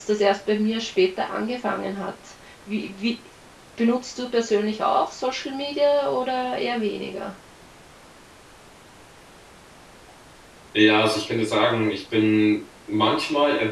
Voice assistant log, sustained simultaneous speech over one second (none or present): none